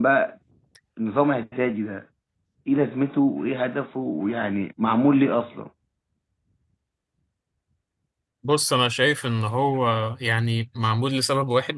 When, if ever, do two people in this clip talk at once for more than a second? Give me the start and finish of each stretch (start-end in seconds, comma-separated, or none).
none